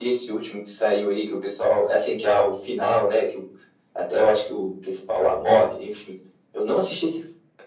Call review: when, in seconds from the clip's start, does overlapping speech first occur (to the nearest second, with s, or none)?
none